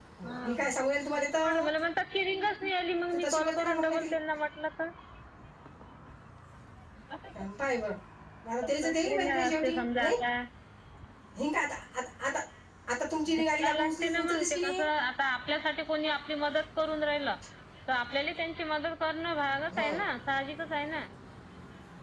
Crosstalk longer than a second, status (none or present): present